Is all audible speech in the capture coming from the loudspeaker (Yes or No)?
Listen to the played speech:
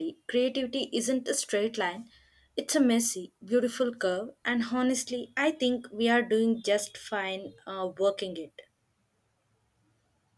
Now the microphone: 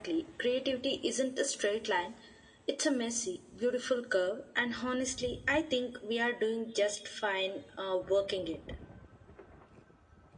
Yes